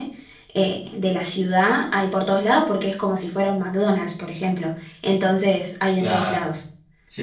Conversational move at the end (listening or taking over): taking over